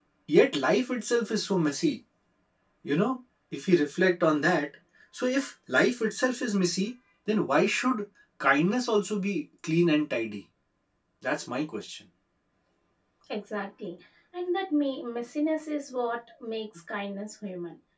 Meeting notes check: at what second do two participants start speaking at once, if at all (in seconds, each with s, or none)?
none